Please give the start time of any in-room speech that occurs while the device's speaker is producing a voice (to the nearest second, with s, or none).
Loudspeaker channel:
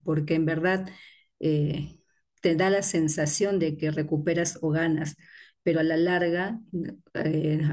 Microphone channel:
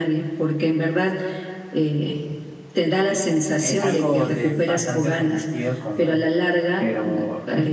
4 s